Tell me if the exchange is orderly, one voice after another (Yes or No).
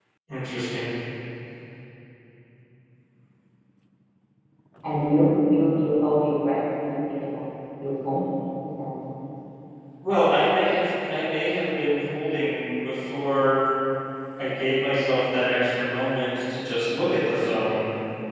Yes